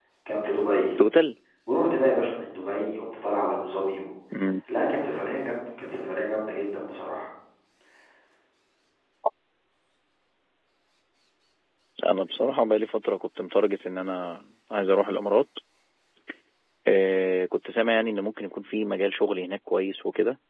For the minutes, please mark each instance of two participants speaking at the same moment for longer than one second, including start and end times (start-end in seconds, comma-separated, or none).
none